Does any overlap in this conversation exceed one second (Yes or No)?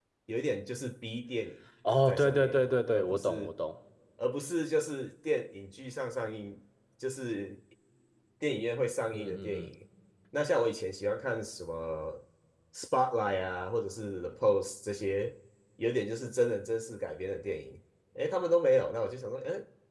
Yes